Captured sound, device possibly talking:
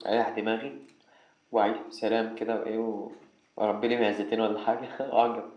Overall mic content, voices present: echo only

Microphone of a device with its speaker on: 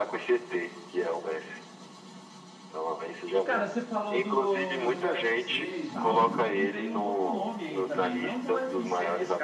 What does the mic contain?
both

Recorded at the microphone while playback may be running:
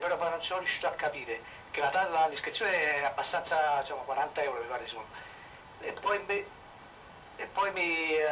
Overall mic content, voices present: echo only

